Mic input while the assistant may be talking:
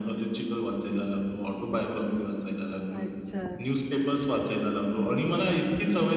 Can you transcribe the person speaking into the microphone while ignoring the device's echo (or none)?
अच्छा.